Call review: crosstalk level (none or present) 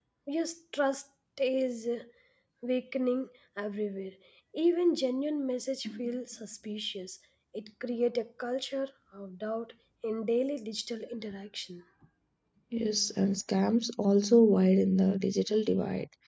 none